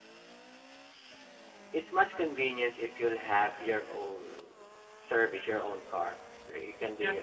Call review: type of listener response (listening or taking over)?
taking over